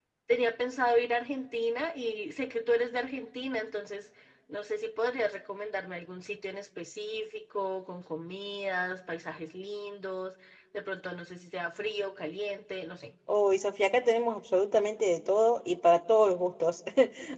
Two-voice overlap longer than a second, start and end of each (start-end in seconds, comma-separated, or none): none